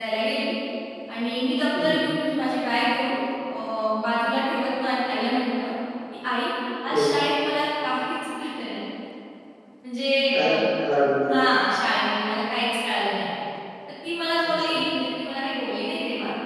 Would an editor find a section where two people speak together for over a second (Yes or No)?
No